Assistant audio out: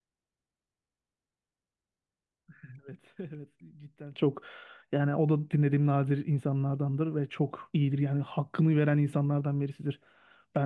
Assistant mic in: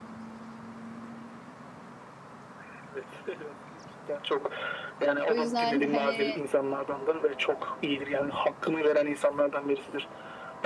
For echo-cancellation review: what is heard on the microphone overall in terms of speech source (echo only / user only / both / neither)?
both